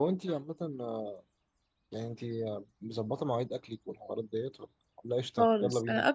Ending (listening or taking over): taking over